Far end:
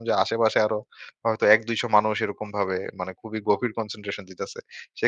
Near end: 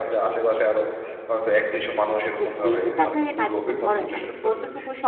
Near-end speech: present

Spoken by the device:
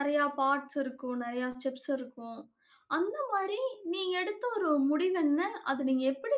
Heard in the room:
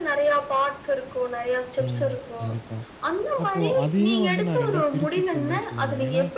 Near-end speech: present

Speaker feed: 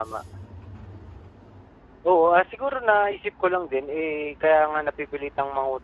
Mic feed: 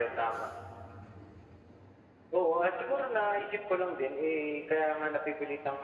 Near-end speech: none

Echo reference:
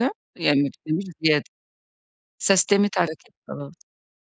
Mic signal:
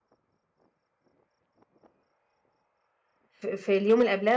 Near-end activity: present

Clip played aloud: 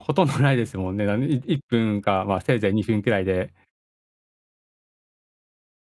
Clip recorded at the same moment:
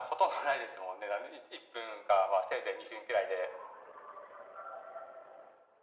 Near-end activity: none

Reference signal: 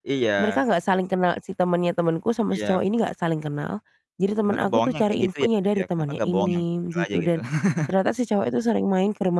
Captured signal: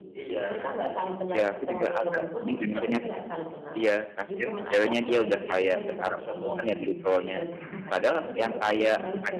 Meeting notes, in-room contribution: present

